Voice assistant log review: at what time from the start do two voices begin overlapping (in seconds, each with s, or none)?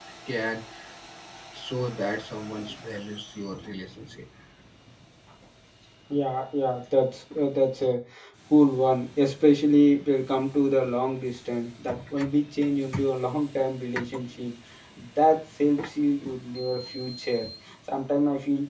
none